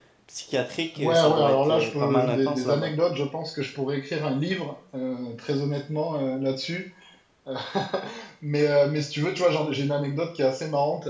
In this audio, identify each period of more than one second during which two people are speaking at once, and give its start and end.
1.0-2.9

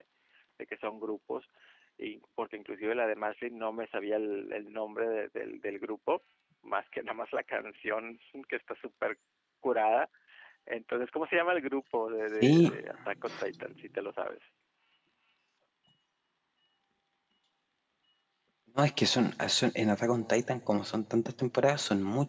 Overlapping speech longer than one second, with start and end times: none

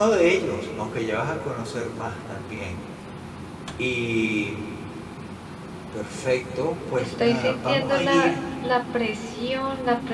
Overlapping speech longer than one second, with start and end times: 6.9-8.3

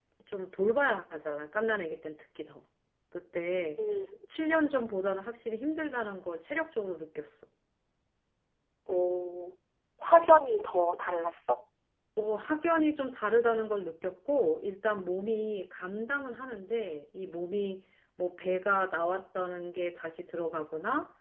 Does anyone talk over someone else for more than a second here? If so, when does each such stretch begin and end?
none

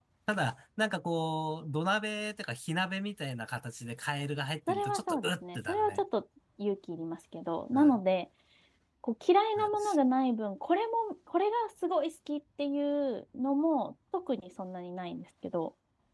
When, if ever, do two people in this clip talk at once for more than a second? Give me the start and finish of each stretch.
4.7-6.0

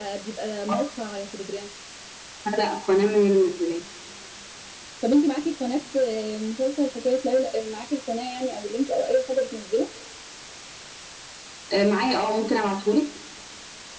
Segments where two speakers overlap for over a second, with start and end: none

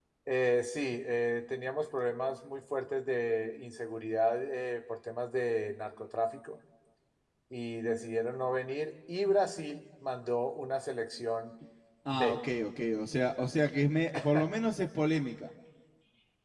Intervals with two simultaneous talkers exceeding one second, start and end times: none

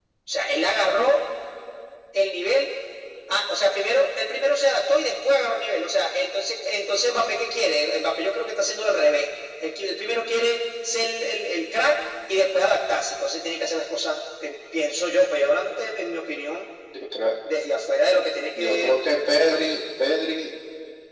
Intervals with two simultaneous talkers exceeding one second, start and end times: none

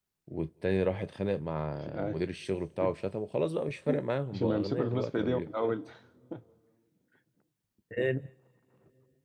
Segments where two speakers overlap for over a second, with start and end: 4.3-5.7

